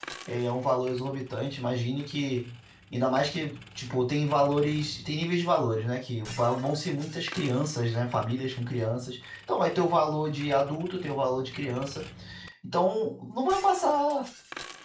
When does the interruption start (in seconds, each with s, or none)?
none